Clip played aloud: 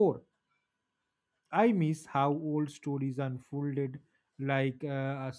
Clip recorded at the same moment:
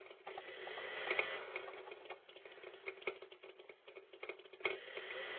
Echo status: none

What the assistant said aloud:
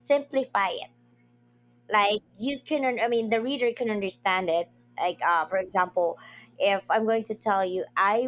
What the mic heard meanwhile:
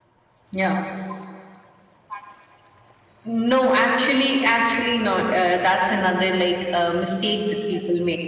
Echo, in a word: none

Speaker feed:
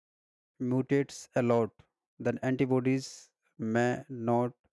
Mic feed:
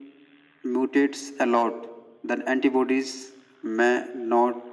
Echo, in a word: present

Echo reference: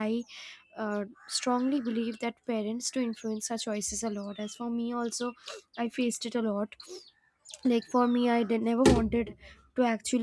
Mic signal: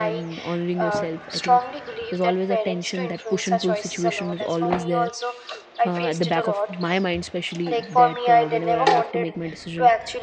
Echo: present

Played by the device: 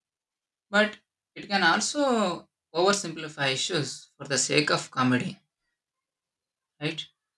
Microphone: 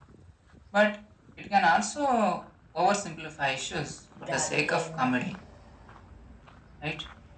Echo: present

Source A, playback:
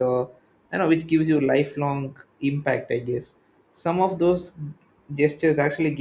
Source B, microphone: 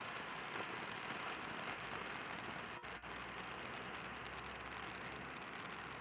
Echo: none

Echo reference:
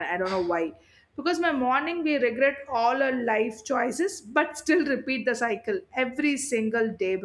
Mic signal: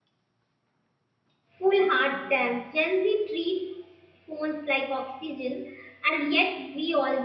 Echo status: none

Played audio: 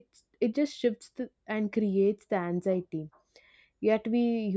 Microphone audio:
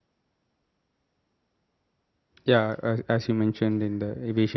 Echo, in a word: none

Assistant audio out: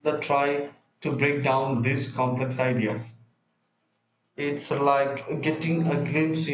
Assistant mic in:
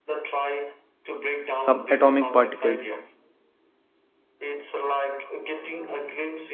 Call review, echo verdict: present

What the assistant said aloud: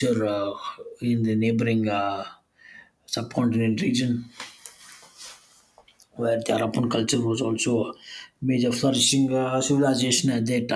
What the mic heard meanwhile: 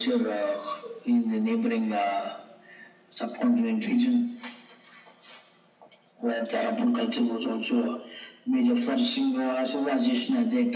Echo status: present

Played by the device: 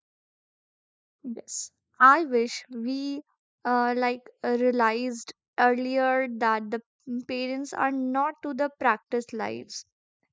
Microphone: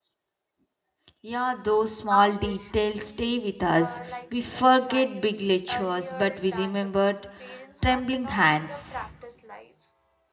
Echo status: present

